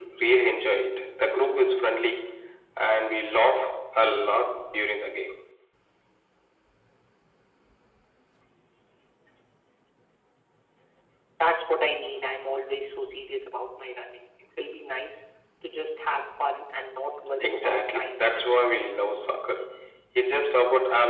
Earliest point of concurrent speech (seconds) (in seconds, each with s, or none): 17.4 s